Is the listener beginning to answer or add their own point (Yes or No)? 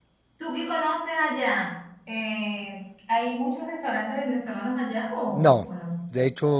Yes